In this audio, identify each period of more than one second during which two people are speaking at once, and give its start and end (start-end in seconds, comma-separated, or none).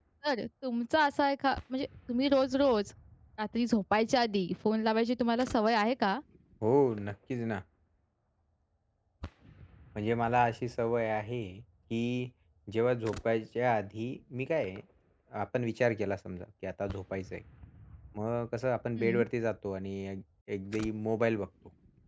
none